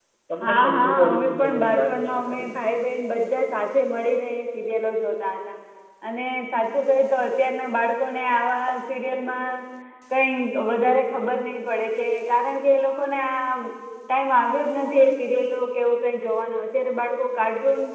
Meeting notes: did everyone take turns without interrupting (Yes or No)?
No